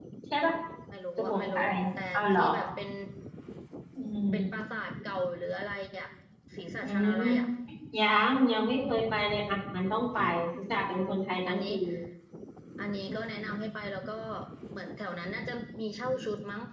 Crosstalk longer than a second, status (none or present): present